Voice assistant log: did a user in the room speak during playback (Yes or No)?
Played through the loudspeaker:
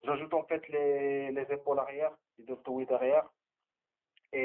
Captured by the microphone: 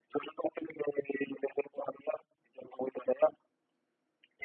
No